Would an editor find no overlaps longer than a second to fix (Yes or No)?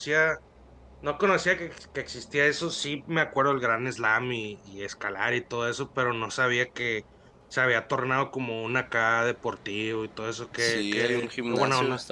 No